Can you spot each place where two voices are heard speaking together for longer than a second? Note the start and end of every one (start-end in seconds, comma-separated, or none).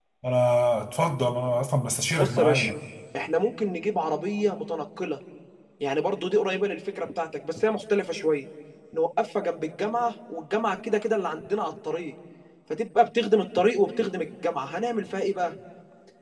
none